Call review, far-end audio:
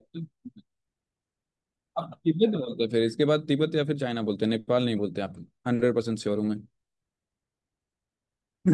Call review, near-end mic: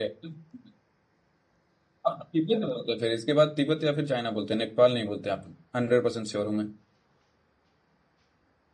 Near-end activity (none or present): none